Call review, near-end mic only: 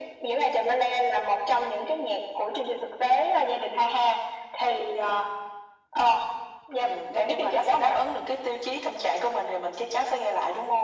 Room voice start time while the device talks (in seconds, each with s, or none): none